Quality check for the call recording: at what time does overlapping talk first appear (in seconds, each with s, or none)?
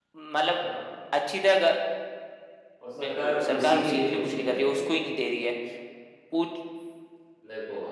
3.0 s